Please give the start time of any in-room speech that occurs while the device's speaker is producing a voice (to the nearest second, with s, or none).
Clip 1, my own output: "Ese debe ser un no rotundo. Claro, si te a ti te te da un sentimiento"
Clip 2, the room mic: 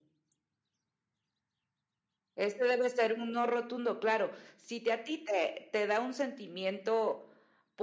none